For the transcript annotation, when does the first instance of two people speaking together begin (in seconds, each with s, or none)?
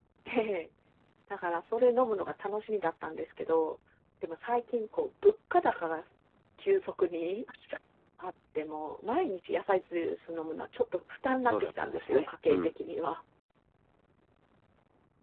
11.3 s